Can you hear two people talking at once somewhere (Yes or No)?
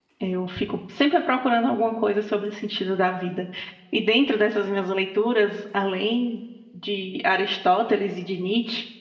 No